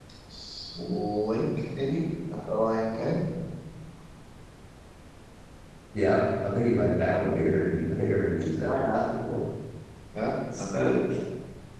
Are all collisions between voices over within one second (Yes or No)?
Yes